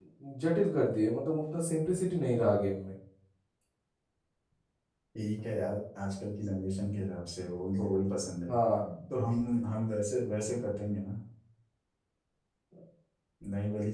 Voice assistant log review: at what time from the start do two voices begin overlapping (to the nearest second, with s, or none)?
none